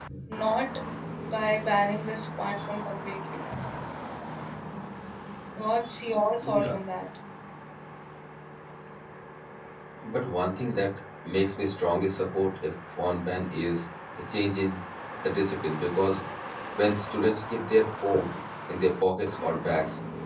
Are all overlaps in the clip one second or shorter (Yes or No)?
Yes